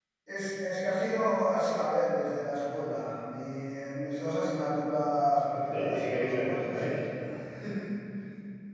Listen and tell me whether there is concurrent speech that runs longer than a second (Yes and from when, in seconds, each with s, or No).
Yes, from 5.7 s